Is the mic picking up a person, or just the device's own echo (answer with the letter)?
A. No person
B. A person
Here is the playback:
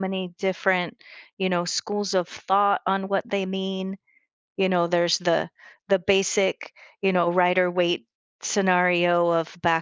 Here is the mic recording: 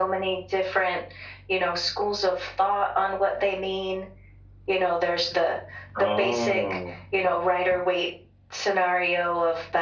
B